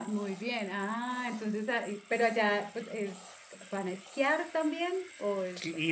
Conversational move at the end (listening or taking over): taking over